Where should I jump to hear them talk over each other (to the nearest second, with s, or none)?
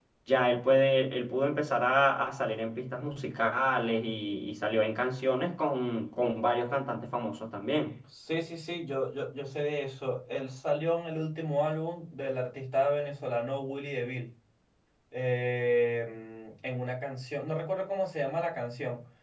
none